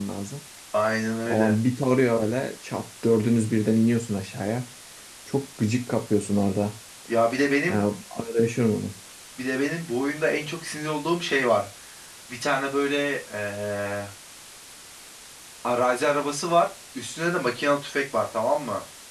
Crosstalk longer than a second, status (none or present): none